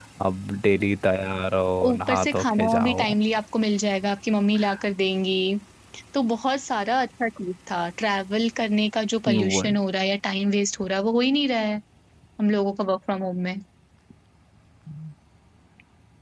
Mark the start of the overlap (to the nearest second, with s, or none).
2 s